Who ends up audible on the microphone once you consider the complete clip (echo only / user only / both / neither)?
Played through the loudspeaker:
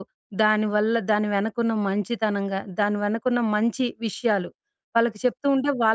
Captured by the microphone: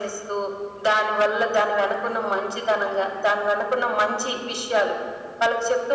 echo only